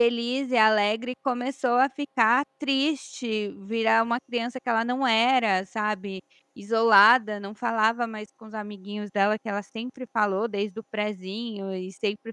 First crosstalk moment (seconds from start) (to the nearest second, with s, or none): none